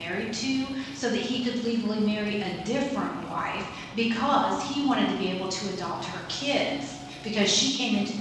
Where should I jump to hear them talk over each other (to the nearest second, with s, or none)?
none